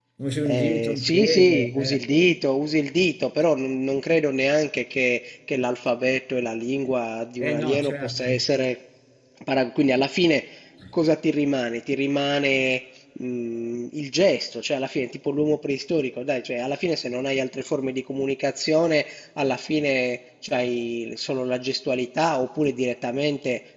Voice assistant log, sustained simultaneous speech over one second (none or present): present